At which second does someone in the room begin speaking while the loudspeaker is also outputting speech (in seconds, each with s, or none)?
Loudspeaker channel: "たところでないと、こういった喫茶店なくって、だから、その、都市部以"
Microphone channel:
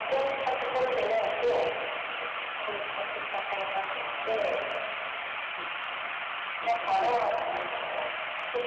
3.7 s